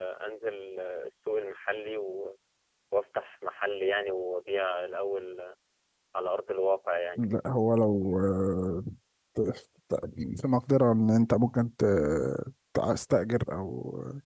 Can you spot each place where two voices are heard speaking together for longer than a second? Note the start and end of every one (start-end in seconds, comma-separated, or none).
none